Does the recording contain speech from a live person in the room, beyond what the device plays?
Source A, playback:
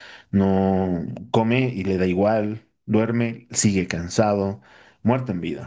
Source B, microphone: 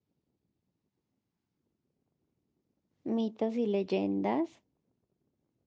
Yes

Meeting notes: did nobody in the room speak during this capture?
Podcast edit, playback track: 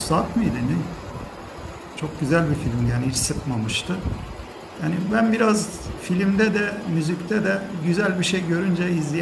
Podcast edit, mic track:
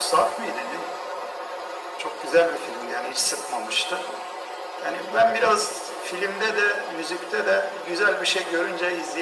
Yes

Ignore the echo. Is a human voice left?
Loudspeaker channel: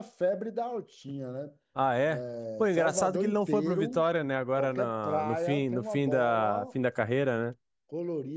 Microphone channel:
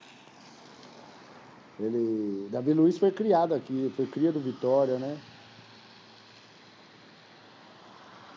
Yes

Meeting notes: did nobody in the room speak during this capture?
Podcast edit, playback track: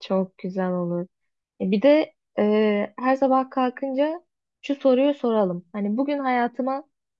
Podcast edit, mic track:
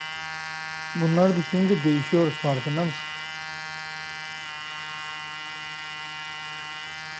No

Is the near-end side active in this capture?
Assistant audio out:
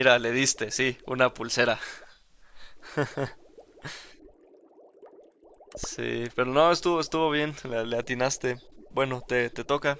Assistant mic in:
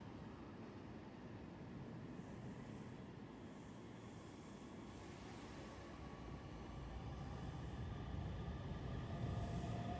No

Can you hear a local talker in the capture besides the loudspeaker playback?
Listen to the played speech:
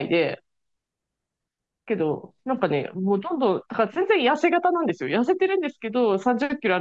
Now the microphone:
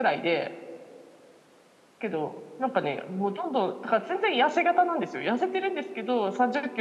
No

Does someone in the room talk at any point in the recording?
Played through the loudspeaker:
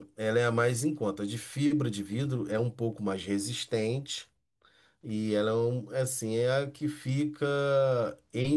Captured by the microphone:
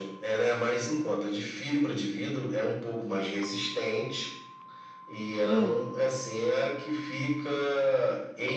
Yes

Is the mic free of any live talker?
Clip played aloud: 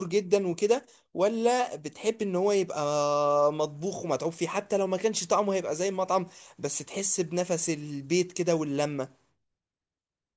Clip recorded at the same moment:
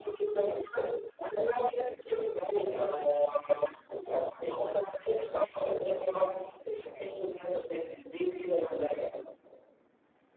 Yes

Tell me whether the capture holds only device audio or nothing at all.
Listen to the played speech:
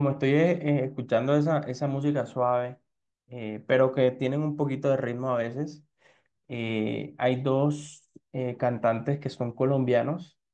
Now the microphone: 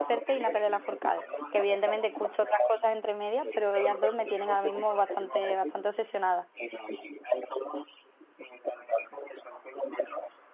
No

